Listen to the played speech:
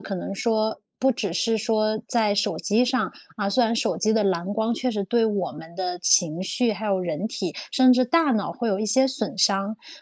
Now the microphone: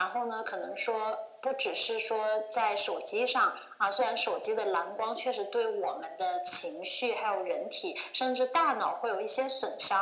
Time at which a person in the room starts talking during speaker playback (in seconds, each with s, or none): none